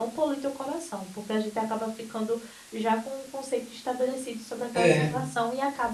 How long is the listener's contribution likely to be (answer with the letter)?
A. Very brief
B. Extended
A